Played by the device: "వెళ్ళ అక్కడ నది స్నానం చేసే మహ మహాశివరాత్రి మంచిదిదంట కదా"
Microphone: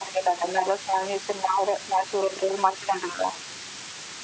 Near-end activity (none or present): none